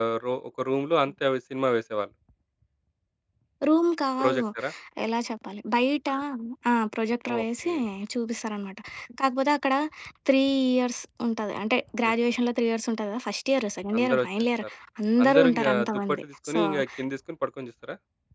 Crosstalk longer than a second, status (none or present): present